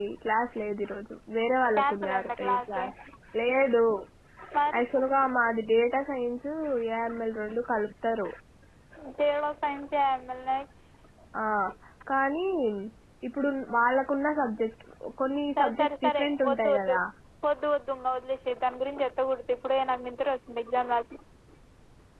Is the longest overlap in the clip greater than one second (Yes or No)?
Yes